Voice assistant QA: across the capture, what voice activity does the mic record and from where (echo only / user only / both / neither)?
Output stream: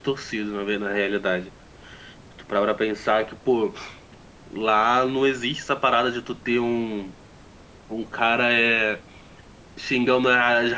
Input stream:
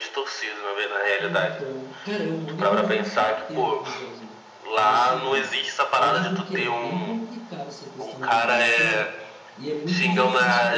both